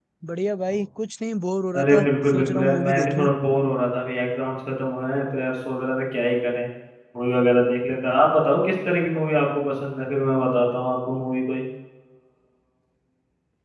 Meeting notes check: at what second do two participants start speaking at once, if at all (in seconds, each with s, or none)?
1.7 s